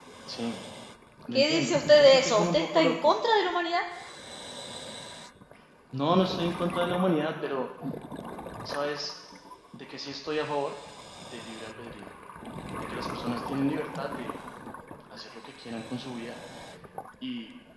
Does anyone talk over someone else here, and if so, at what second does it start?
1.3 s

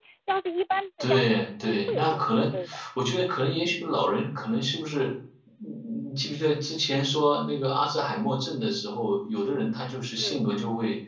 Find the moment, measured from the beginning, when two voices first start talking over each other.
1.0 s

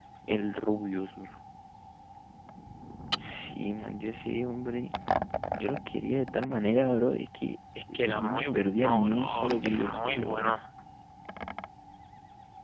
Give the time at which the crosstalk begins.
7.9 s

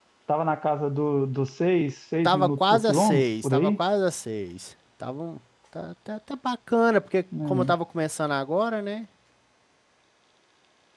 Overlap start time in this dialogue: 2.2 s

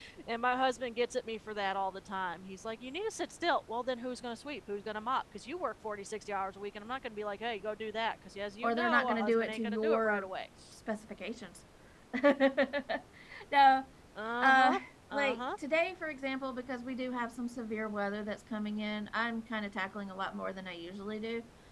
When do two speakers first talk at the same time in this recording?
8.6 s

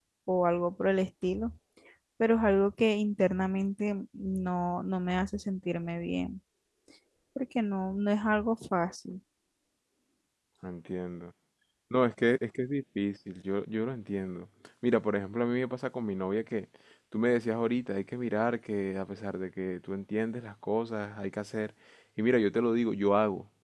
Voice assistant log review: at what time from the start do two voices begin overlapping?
none

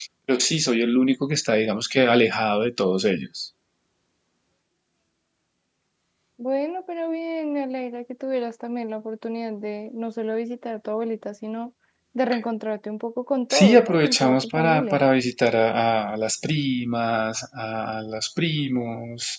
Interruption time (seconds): 13.5 s

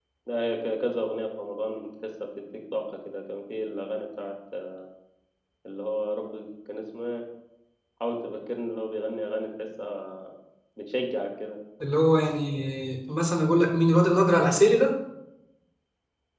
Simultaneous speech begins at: none

